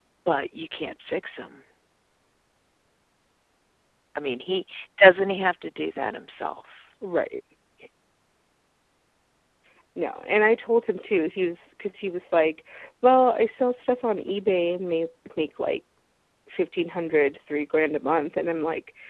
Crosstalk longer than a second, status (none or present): none